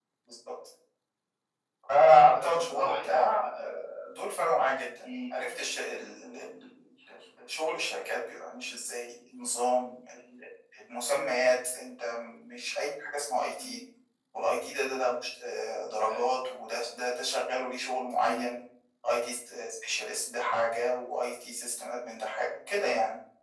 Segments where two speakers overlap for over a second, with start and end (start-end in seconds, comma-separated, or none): 2.2-3.8